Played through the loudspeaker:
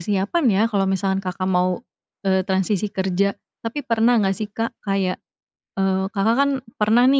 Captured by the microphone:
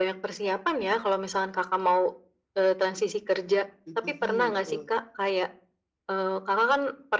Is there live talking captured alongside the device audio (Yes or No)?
Yes